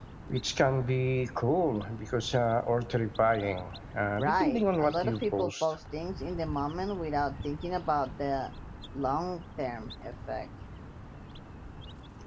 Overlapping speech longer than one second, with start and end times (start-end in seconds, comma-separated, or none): 4.2-5.8